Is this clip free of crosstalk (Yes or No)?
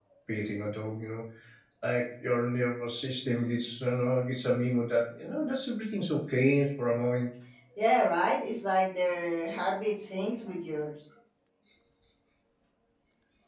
Yes